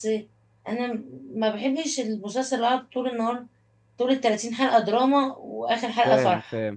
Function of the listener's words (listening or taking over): taking over